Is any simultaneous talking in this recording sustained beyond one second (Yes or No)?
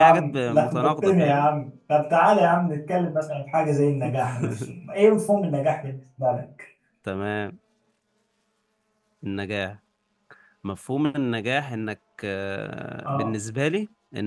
Yes